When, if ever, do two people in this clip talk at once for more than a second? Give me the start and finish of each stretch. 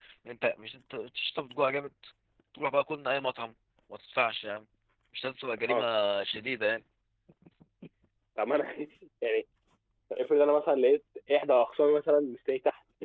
none

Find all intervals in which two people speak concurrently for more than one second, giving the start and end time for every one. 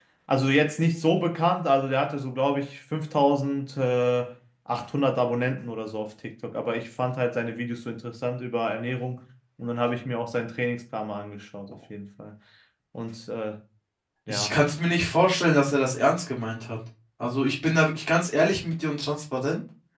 none

